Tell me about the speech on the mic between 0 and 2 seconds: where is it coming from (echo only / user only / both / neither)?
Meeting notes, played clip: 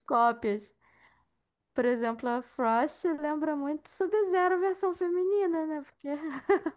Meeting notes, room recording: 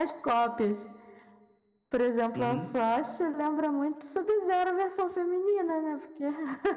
echo only